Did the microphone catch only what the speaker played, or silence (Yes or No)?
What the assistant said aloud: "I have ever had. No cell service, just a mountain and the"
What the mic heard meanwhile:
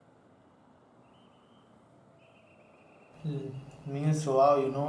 No